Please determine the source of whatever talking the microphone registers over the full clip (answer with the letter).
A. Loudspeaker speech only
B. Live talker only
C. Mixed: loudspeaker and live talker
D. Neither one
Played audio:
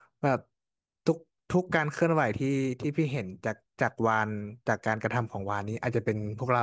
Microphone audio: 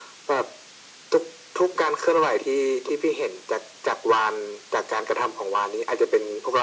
A